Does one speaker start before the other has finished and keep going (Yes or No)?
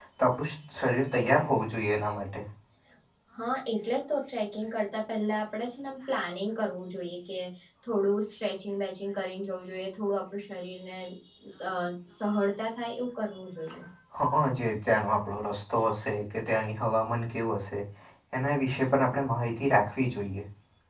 No